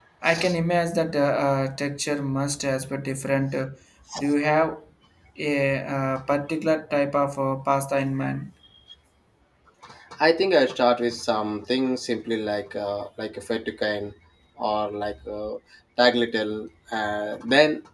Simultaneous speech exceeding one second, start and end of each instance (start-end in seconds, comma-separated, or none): none